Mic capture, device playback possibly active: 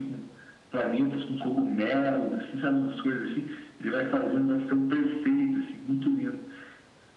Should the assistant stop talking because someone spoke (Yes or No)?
No